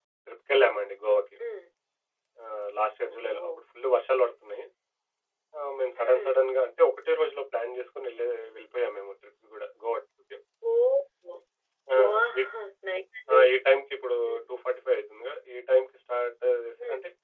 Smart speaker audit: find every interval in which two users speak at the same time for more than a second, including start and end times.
none

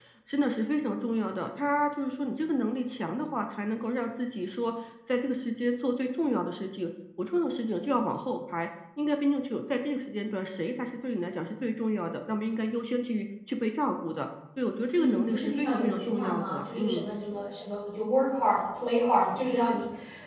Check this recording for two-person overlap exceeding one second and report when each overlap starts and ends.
15.0-17.1

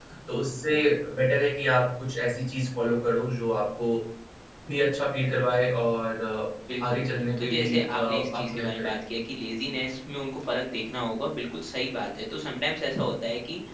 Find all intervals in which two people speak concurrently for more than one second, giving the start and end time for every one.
7.4-8.9

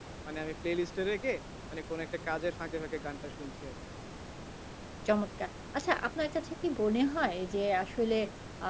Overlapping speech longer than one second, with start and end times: none

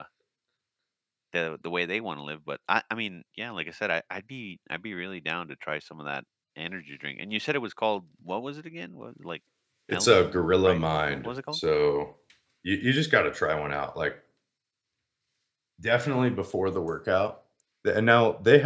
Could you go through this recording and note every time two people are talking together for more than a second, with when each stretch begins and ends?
9.9-11.6

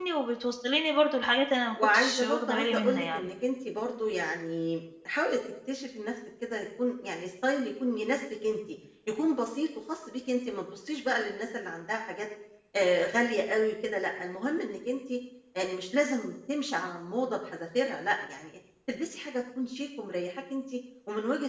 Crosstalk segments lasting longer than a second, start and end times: 1.7-3.3

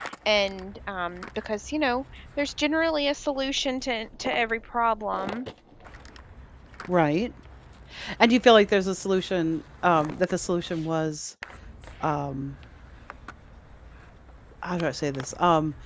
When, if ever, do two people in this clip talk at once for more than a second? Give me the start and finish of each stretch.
none

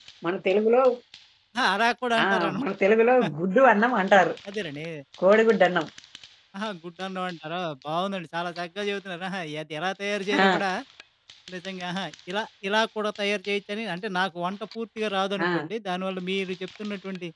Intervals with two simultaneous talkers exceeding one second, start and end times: none

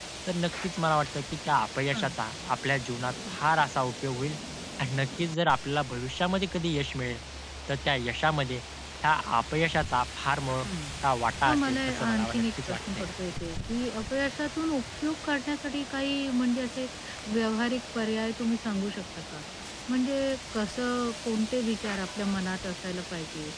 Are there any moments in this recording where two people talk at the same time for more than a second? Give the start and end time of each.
11.5-13.1

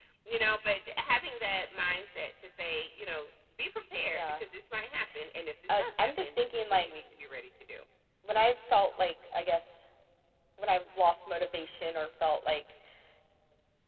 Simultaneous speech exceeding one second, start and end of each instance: 5.7-6.9

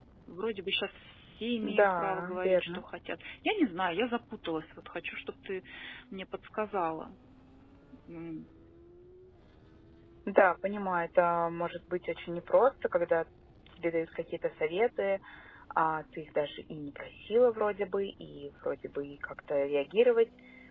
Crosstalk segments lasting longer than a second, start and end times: 1.6-2.8

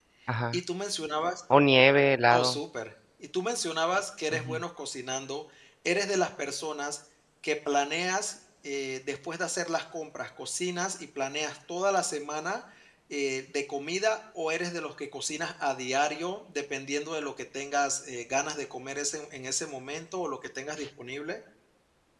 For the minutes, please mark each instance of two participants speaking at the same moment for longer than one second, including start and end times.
none

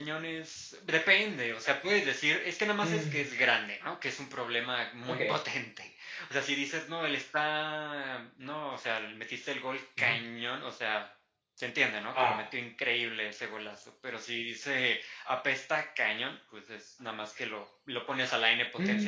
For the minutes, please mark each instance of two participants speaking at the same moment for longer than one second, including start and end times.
none

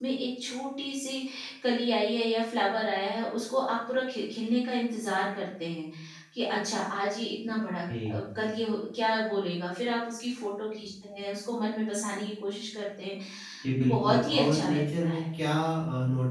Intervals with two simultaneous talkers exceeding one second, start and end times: 13.8-15.2

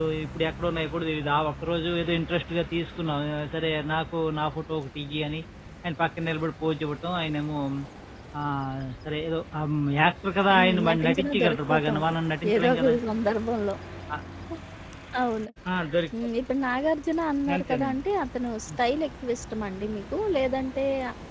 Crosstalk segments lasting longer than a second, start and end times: 10.5-12.0

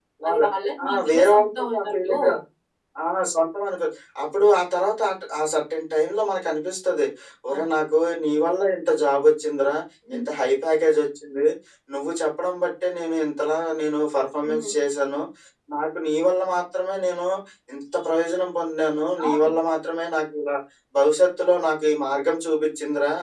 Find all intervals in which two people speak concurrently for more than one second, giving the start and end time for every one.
0.8-2.1

